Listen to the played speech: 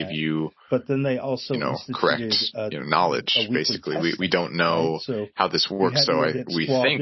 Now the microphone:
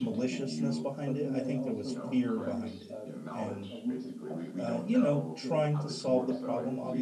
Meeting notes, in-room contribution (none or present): present